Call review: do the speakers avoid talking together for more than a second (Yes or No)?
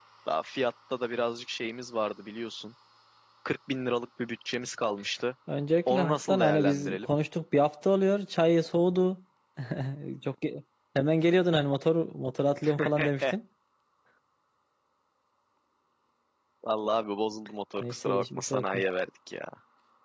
No